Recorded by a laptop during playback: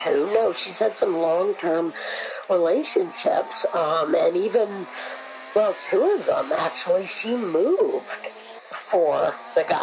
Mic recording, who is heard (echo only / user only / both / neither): echo only